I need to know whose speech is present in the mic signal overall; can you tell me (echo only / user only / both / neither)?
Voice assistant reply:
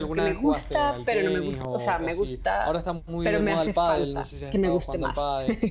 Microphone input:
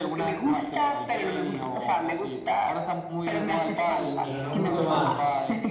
both